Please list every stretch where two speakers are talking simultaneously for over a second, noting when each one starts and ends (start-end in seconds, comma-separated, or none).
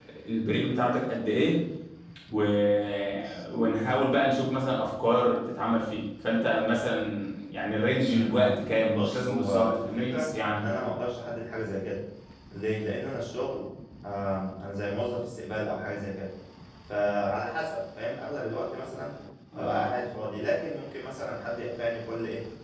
8.1-10.7